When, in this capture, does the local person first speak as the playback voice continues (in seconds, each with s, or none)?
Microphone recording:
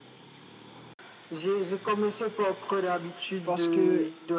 3.4 s